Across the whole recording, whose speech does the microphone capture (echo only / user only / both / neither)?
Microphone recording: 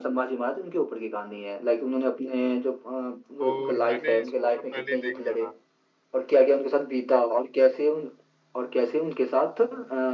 both